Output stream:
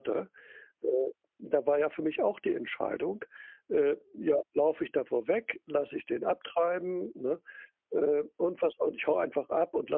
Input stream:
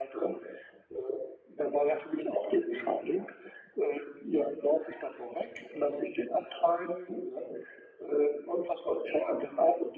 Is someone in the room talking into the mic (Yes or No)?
No